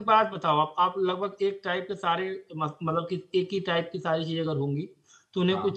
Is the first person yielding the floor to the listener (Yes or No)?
No